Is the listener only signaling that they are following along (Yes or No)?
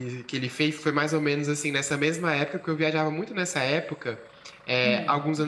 Yes